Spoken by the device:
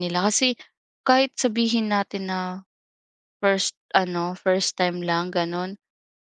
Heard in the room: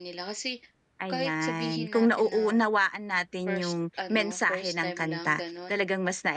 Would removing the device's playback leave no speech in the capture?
No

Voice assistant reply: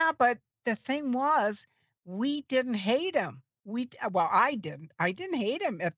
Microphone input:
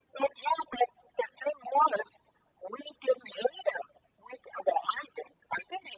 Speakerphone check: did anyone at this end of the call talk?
No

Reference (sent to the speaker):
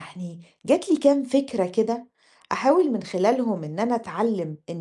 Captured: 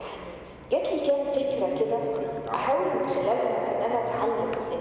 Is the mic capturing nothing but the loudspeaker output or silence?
No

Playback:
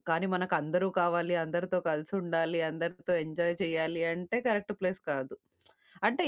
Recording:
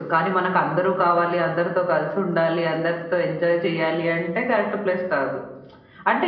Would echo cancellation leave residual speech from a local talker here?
No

